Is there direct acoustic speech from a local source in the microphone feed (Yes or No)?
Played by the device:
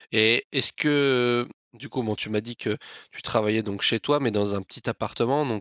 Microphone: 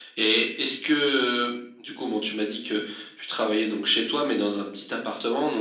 No